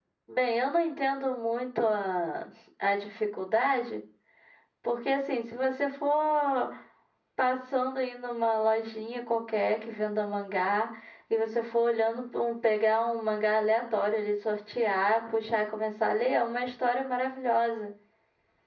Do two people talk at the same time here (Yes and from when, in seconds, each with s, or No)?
No